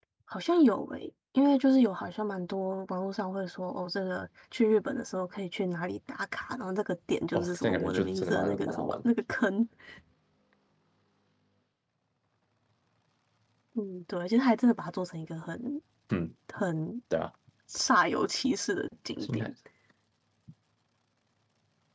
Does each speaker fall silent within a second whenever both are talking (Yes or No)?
No